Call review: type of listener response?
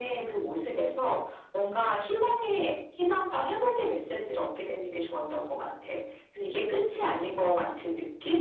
listening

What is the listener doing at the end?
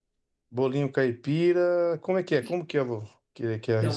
taking over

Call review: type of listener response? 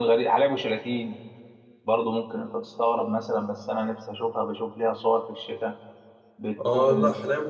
taking over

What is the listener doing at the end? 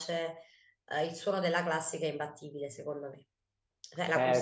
taking over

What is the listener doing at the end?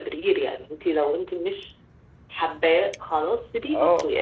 taking over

